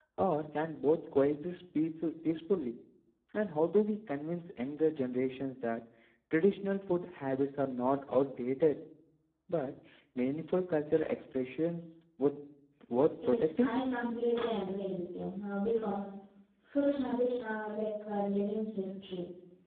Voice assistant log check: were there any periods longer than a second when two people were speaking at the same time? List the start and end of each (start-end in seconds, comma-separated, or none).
none